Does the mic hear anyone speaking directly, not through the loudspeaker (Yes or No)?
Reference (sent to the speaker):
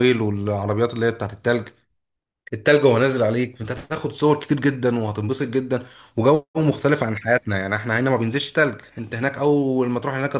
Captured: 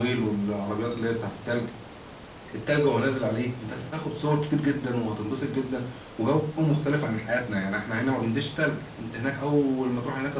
No